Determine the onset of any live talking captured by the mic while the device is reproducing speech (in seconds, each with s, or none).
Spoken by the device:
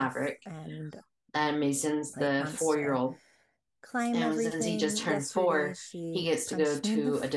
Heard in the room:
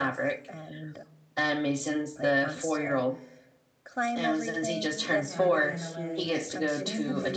5.3 s